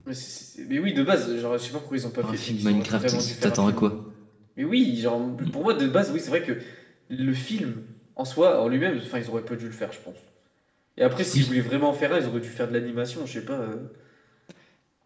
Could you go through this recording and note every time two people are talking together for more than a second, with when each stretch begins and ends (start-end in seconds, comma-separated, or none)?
2.2-3.9